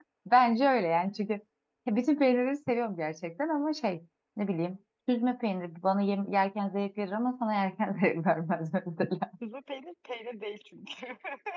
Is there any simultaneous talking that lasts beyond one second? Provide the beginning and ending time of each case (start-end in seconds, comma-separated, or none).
none